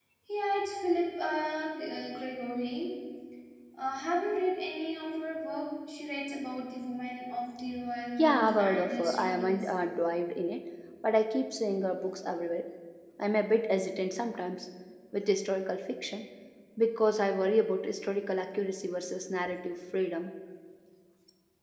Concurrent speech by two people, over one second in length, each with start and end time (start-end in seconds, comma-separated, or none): 8.2-9.7